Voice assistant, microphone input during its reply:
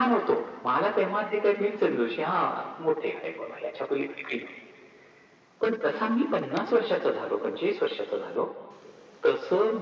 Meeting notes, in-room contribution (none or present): none